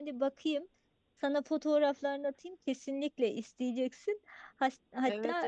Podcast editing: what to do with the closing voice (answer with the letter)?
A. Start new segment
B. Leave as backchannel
A